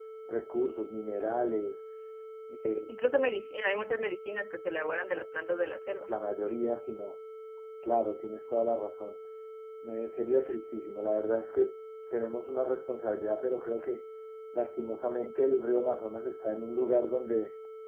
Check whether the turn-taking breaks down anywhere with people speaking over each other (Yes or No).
No